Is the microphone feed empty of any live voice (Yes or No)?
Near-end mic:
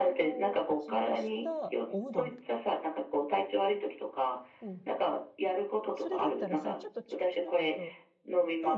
No